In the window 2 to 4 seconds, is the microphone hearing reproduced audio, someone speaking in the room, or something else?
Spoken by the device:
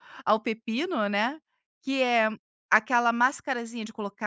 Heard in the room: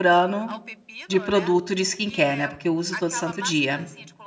both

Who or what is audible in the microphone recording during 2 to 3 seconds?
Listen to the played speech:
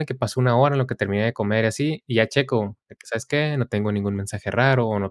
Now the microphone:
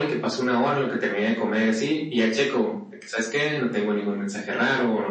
echo only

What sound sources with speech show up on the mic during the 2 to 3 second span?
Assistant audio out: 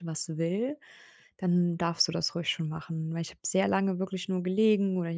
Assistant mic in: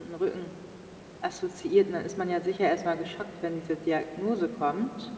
user only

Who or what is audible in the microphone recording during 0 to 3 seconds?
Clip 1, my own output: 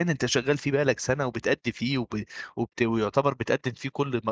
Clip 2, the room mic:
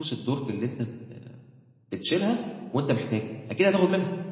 user only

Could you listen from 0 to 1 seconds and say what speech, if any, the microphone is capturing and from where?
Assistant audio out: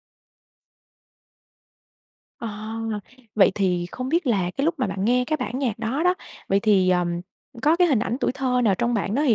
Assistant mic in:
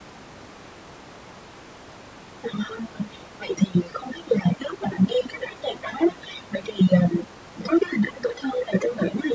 neither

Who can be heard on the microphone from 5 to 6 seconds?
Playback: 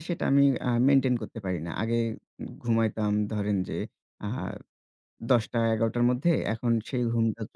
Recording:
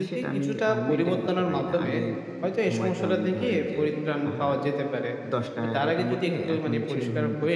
both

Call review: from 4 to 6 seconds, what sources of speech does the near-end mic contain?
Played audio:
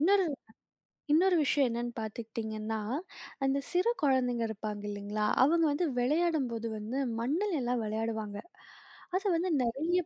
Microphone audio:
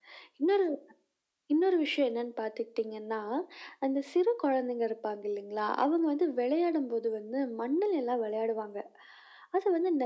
echo only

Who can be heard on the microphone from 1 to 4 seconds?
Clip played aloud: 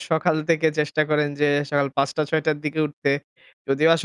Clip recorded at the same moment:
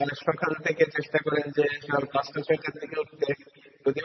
echo only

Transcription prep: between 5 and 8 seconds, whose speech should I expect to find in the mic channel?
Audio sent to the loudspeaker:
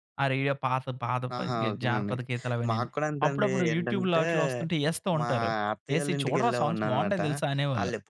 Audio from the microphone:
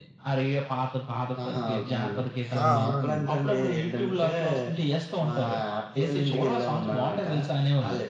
echo only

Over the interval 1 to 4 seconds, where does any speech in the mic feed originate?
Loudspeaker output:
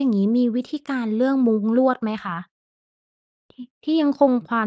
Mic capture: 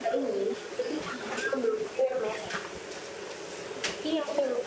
echo only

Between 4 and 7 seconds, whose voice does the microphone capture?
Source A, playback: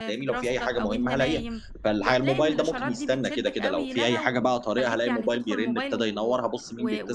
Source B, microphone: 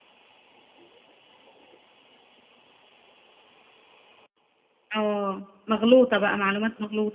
user only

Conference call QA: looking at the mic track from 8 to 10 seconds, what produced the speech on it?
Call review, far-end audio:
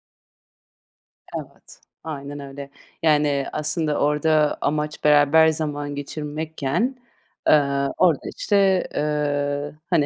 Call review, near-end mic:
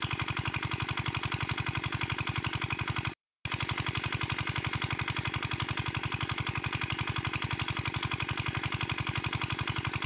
neither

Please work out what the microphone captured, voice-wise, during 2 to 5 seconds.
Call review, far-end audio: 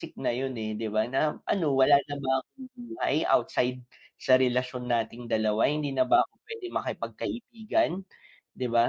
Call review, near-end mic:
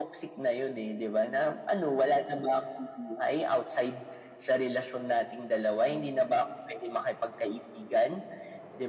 echo only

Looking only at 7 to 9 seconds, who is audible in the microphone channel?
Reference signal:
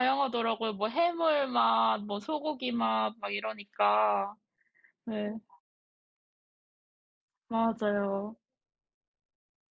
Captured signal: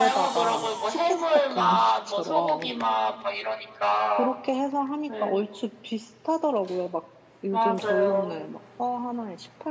both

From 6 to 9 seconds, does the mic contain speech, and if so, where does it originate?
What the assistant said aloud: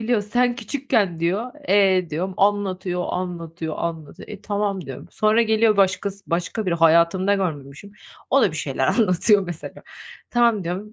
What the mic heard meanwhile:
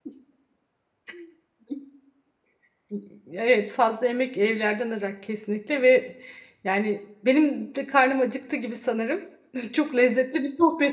user only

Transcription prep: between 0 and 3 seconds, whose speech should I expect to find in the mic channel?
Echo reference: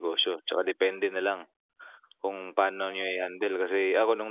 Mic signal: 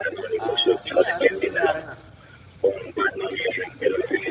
both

